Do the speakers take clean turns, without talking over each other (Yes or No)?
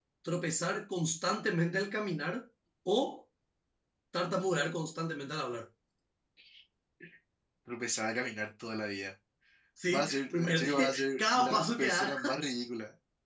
No